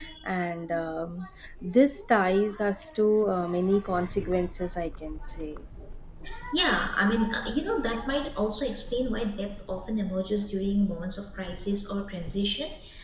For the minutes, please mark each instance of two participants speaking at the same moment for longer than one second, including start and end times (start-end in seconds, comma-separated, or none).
none